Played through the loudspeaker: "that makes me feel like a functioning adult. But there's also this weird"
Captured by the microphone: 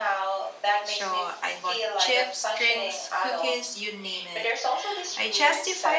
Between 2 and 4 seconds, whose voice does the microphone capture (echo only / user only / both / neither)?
both